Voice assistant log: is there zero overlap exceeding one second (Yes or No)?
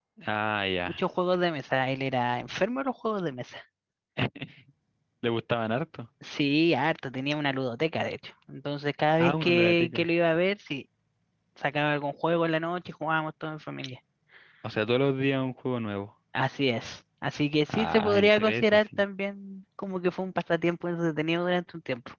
No